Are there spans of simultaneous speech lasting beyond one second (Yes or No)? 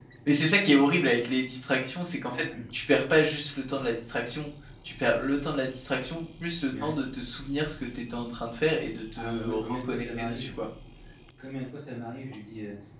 Yes